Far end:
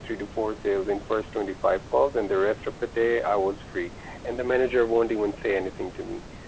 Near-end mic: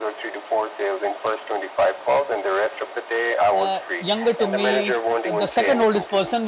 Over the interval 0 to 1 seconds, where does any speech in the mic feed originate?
echo only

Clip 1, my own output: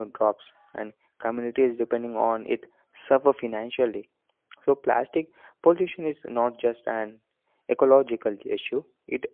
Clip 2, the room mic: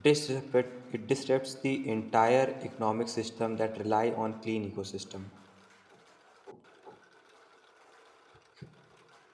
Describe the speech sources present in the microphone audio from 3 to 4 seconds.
user only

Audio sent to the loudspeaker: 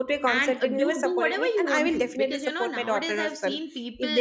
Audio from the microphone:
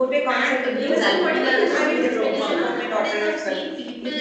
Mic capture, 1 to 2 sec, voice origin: both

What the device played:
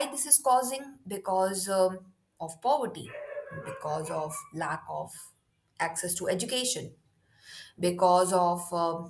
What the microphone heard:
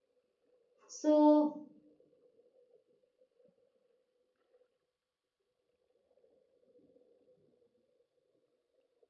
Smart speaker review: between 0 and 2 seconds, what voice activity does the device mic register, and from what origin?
user only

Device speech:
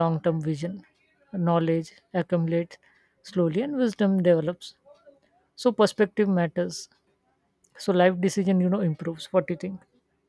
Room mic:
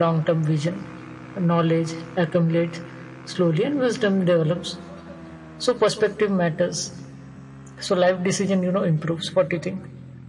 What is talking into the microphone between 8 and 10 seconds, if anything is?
echo only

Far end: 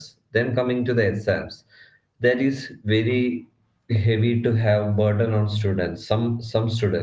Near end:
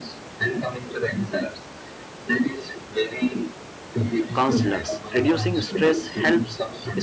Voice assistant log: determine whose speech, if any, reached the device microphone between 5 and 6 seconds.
both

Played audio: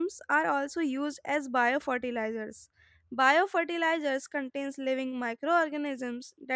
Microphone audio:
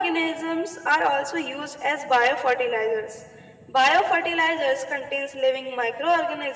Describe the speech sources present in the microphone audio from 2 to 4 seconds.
echo only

